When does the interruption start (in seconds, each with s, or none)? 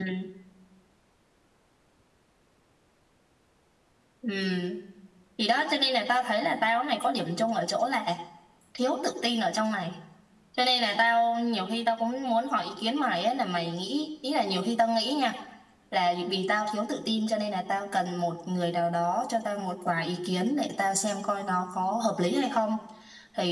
none